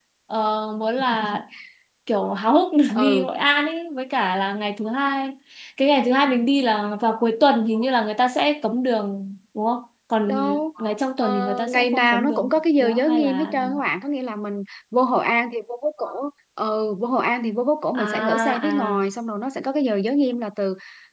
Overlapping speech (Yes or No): Yes